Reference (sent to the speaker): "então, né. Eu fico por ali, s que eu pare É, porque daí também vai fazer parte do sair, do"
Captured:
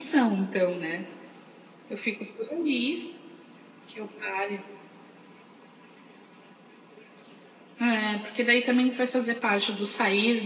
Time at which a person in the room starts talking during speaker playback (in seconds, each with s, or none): none